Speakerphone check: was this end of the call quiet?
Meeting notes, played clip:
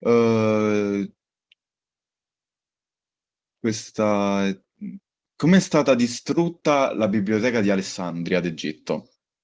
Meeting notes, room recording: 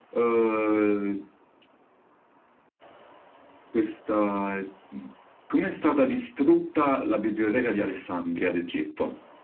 Yes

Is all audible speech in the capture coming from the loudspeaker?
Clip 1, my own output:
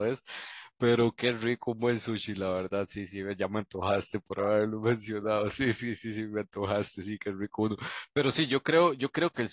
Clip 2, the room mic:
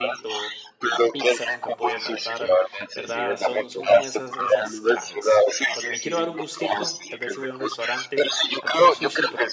No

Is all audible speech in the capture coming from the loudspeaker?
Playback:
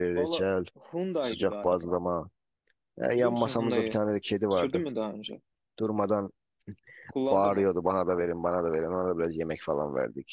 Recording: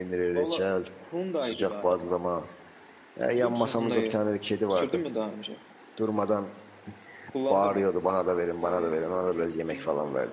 No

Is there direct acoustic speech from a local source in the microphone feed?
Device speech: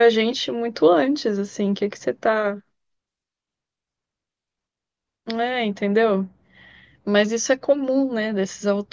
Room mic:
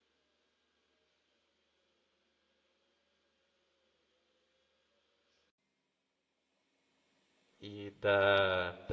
Yes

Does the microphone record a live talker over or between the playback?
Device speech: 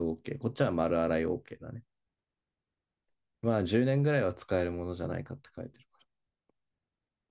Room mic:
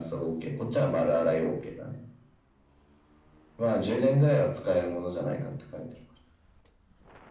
No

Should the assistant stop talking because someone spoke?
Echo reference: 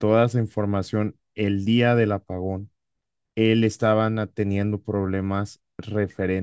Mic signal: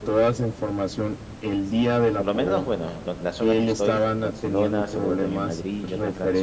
Yes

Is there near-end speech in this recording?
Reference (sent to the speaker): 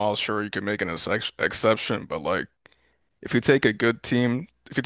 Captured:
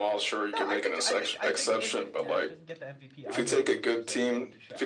Yes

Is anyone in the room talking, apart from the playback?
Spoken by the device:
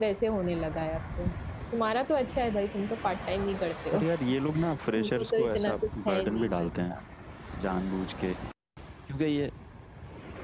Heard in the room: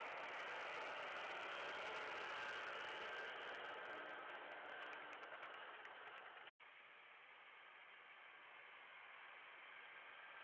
No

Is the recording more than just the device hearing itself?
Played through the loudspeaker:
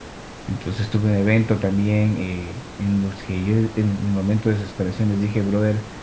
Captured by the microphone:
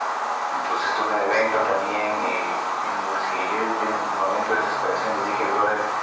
No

